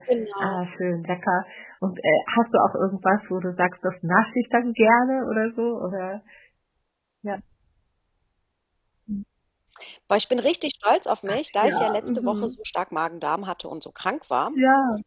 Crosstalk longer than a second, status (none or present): present